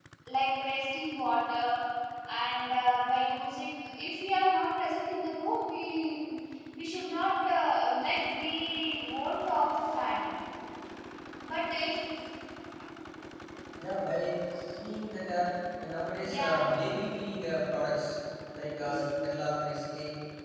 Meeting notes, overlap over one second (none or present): none